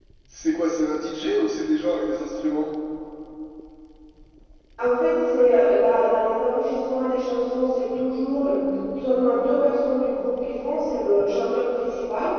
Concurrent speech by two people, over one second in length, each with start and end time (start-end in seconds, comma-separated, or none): none